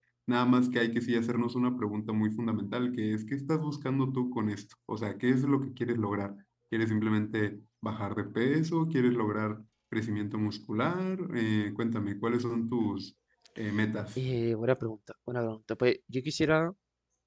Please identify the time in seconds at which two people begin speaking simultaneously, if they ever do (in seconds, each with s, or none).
none